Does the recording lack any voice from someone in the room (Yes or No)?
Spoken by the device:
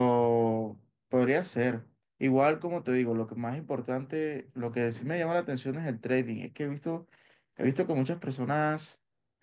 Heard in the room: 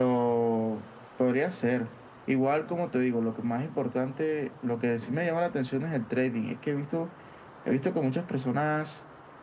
Yes